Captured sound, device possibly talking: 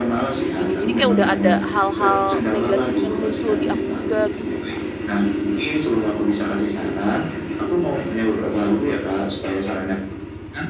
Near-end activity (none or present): present